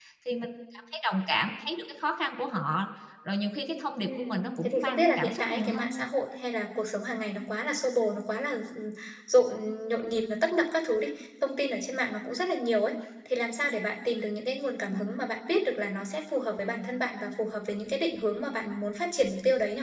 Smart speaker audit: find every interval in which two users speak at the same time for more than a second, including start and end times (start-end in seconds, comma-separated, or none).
4.0-5.9